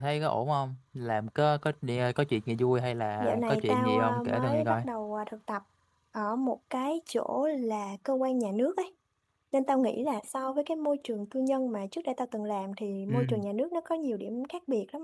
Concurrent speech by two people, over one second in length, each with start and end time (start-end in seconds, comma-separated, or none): 3.2-4.8